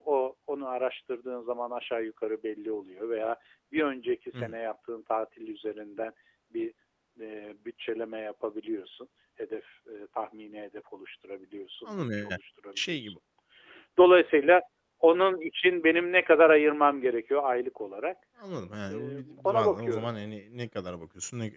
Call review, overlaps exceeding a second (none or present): present